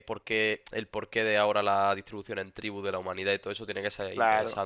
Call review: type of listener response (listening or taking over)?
taking over